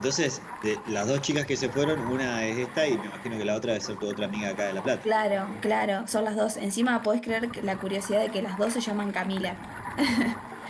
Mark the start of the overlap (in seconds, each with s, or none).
none